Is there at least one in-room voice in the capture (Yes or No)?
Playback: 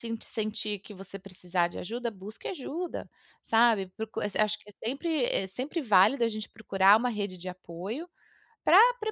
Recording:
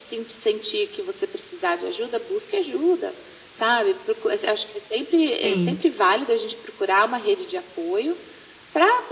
Yes